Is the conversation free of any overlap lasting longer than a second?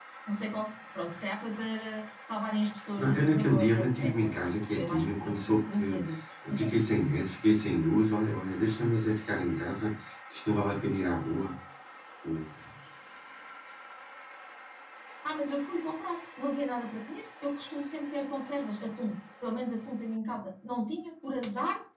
No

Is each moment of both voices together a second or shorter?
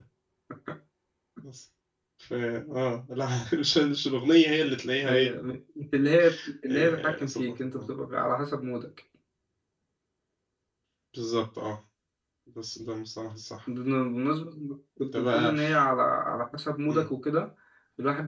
No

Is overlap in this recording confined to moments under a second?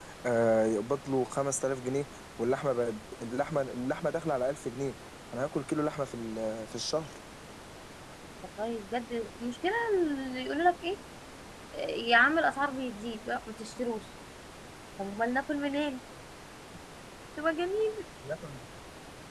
Yes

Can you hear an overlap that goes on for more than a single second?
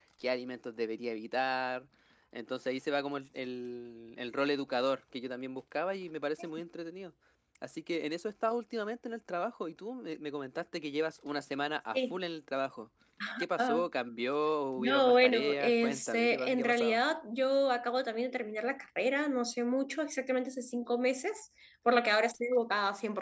Yes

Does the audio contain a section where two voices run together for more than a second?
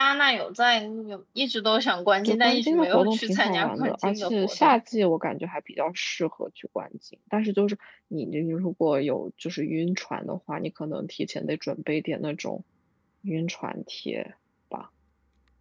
Yes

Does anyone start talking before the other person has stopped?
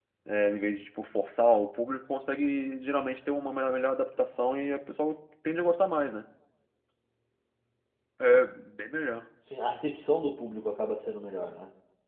No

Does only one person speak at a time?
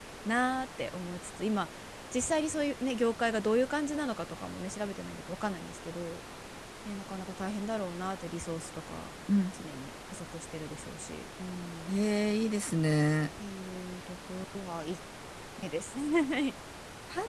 Yes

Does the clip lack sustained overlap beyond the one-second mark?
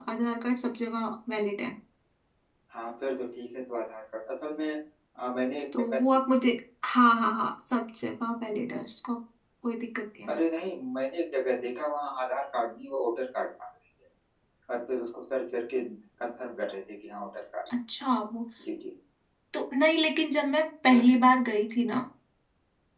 Yes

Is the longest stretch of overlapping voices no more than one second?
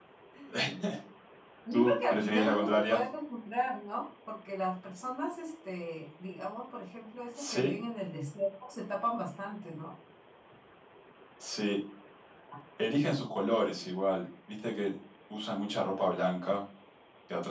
No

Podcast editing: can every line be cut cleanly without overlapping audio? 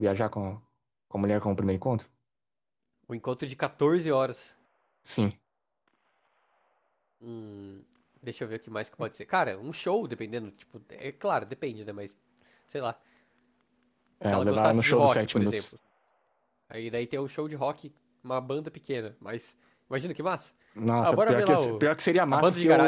No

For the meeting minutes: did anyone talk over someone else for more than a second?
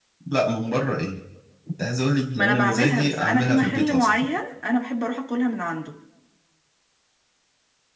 Yes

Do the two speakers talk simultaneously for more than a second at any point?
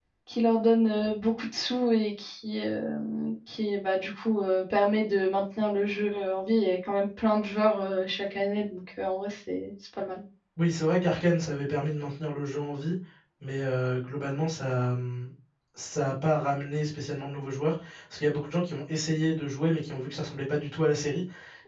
No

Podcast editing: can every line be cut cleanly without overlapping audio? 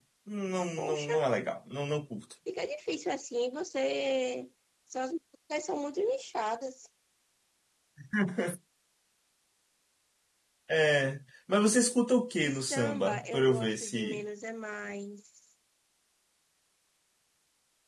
No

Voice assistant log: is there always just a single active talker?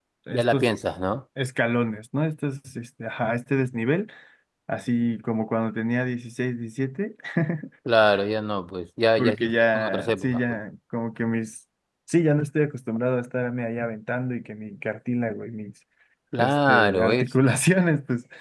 No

